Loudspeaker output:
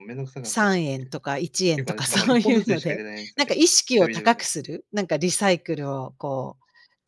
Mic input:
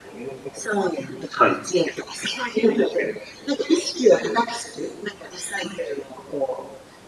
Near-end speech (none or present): present